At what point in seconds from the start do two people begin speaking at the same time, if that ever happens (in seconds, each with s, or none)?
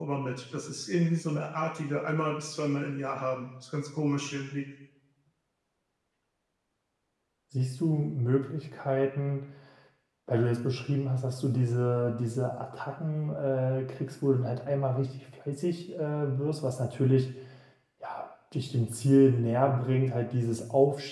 none